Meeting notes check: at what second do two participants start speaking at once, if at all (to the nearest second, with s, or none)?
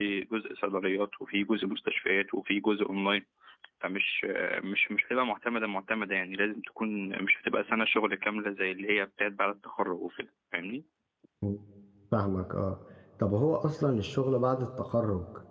none